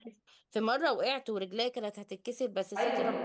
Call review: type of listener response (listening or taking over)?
taking over